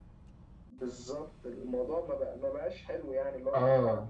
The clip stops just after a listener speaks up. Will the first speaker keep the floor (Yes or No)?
Yes